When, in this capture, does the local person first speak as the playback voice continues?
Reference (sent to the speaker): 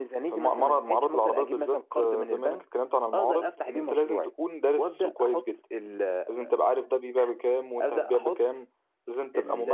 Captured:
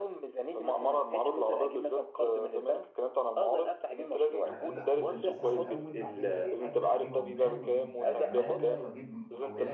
4.4 s

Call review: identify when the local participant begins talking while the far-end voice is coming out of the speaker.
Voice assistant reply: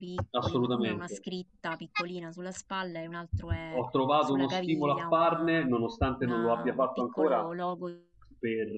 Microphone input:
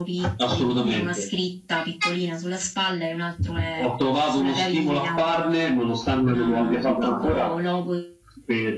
6.2 s

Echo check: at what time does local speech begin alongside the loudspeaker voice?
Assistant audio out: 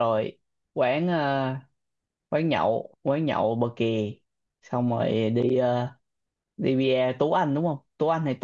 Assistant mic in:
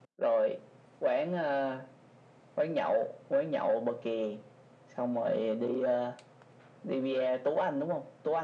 none

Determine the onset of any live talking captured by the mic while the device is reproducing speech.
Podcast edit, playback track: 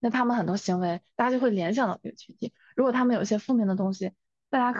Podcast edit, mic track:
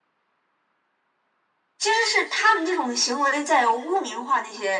1.8 s

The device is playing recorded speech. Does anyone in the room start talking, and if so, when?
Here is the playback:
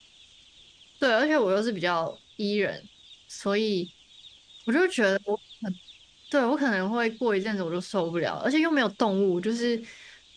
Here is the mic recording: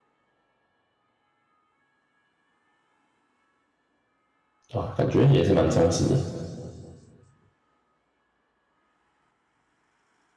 4.7 s

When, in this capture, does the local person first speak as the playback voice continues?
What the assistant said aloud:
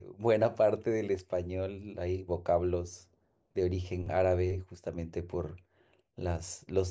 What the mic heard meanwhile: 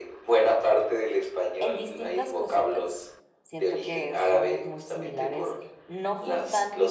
1.6 s

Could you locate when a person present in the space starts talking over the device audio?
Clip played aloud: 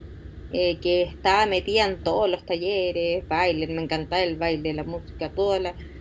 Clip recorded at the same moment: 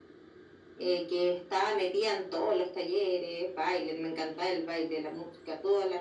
none

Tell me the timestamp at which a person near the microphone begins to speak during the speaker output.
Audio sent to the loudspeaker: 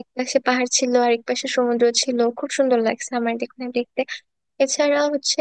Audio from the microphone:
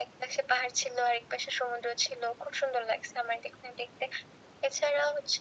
none

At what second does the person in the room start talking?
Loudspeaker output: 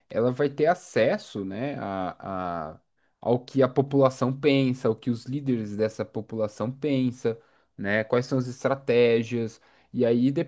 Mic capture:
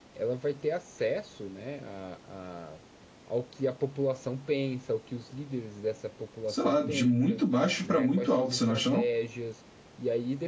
6.5 s

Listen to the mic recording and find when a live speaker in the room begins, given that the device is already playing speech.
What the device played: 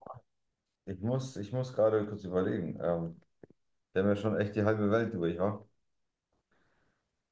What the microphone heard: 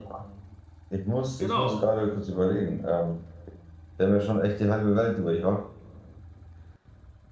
1.4 s

